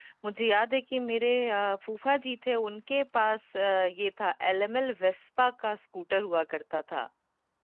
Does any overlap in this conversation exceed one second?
No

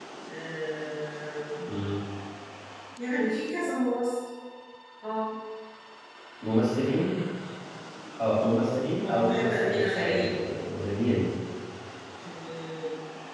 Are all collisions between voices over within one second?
No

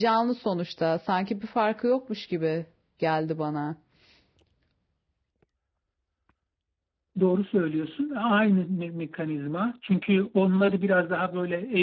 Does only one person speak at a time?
Yes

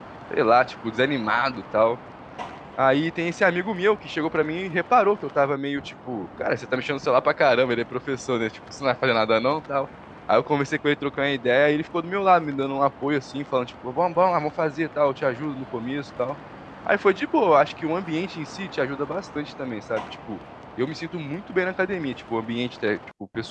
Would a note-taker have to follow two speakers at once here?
No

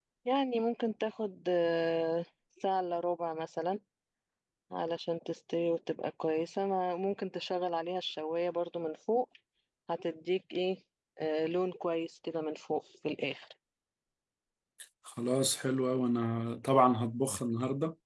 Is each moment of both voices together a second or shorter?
Yes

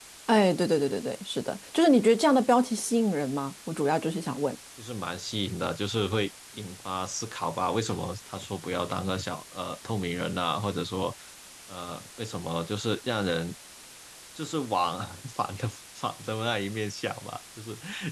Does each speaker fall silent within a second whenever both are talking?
Yes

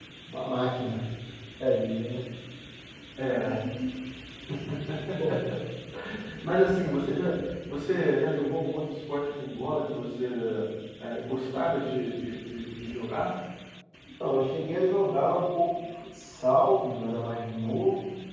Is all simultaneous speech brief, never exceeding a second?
Yes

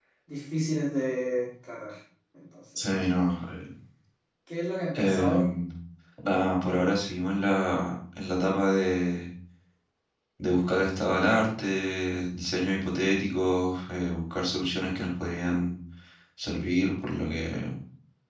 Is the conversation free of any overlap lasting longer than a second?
Yes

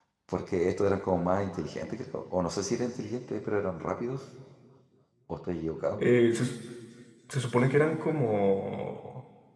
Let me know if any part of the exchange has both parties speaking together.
No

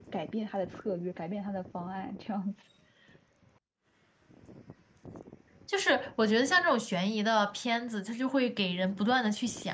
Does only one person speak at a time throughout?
Yes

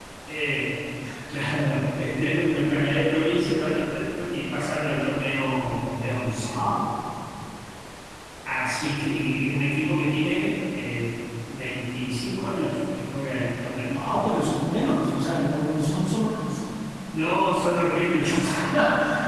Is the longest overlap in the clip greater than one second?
No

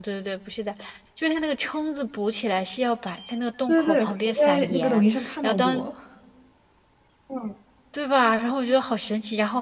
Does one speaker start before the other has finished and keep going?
Yes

